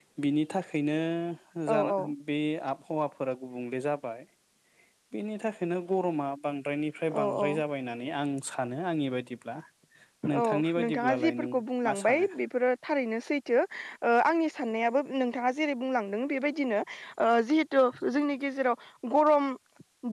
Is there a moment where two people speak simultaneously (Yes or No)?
Yes